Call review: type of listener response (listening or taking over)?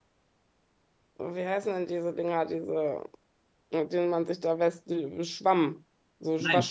taking over